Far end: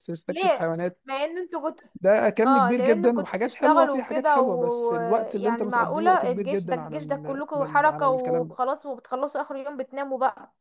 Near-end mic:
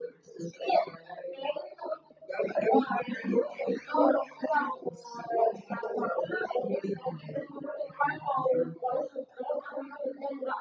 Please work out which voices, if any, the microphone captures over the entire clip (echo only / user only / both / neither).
echo only